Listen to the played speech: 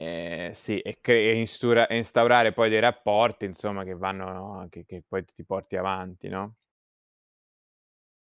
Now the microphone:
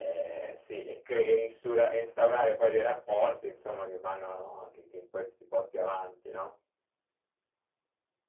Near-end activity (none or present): none